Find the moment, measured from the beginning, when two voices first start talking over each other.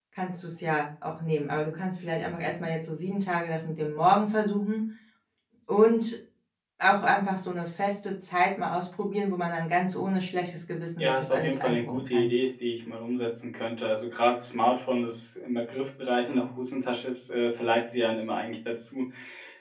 11.0 s

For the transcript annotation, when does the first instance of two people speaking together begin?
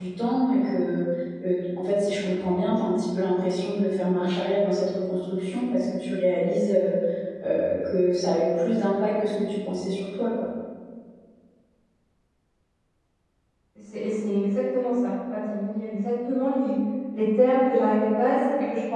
none

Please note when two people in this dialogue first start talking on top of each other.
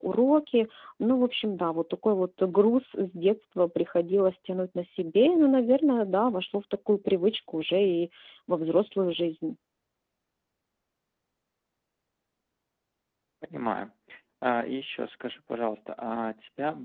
none

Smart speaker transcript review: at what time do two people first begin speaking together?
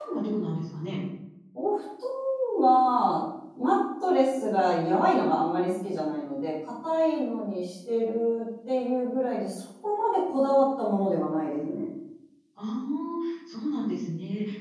none

